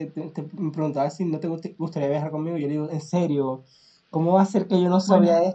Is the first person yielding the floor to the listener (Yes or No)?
Yes